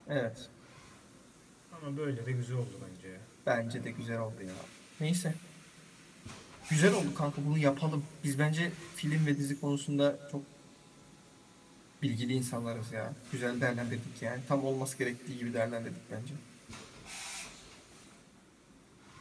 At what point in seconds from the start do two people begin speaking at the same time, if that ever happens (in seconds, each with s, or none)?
none